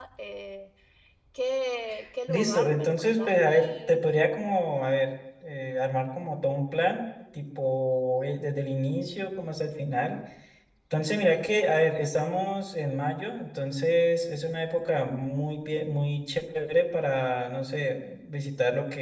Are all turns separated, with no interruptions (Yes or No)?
No